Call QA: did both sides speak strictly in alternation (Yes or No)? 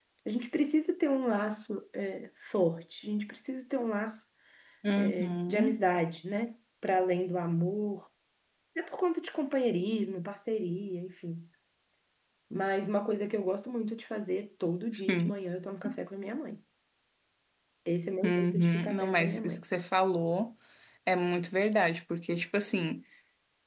No